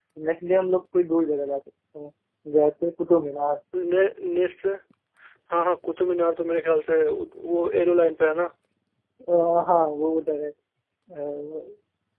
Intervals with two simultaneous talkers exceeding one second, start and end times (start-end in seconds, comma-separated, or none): none